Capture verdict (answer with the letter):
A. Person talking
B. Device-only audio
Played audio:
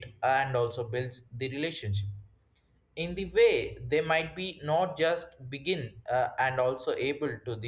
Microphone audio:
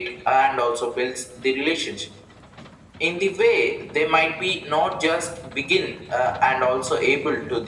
B